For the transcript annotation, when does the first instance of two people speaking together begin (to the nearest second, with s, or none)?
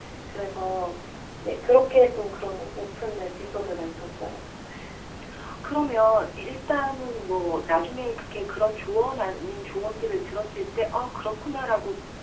none